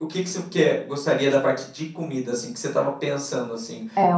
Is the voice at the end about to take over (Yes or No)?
Yes